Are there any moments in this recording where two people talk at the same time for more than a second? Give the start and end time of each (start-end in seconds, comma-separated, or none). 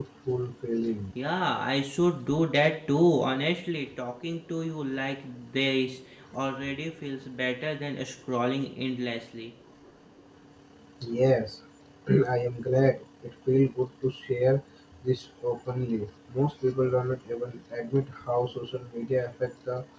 none